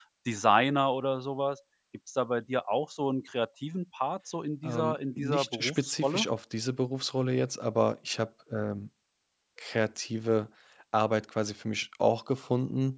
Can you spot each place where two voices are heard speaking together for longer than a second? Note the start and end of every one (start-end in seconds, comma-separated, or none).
4.6-6.2